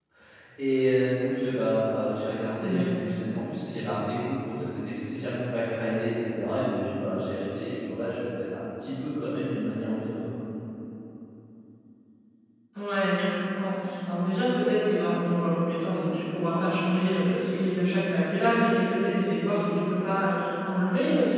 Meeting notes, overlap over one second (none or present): none